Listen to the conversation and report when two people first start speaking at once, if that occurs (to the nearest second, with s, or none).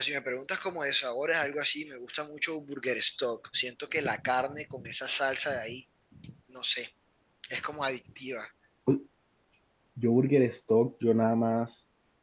none